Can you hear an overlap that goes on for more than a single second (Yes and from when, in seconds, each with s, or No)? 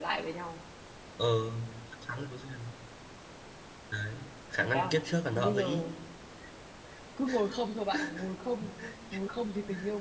No